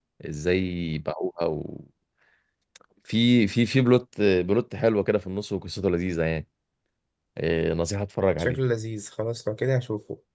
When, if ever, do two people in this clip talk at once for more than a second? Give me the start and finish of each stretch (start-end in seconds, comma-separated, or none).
none